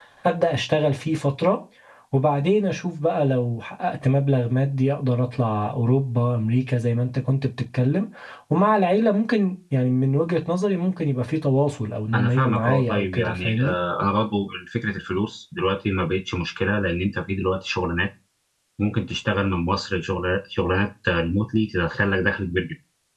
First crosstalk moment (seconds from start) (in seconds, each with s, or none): 12.1 s